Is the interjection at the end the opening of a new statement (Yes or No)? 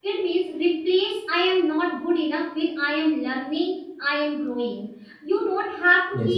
No